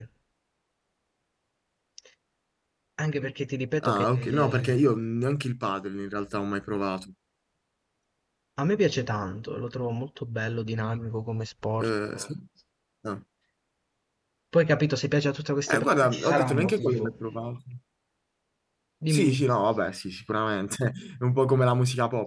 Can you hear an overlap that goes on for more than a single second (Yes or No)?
Yes